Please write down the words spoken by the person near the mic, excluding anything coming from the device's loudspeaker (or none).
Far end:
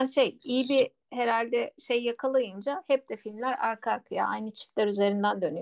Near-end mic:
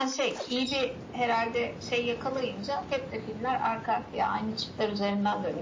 none